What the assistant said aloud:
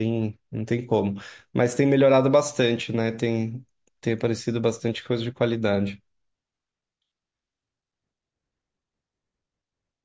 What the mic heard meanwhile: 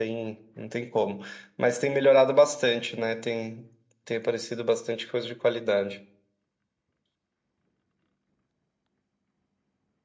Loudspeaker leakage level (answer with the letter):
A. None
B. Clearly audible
B